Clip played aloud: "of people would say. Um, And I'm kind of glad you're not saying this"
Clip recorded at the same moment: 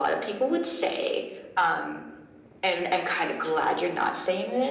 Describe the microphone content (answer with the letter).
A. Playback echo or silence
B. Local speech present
A